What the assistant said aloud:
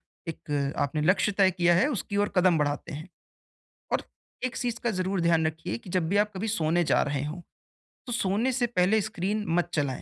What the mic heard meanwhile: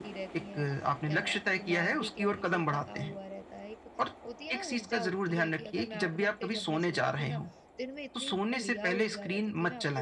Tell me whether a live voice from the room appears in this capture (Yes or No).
Yes